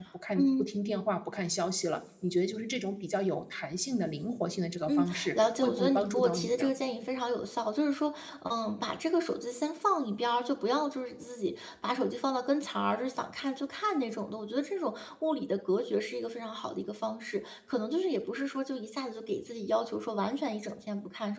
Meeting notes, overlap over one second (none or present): present